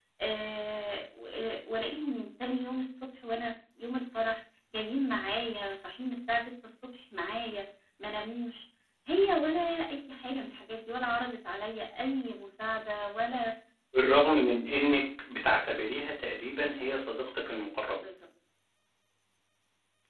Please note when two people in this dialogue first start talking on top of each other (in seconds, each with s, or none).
none